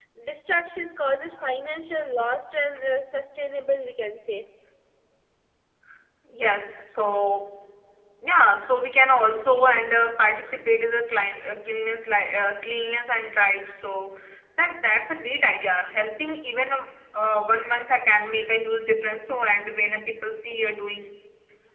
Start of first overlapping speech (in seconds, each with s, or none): none